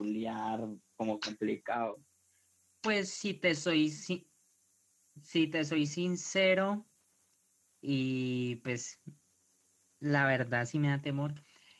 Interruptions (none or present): none